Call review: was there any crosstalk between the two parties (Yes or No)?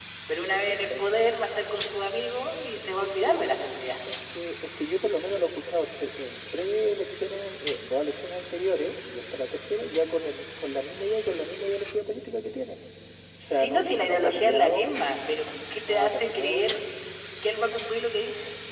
Yes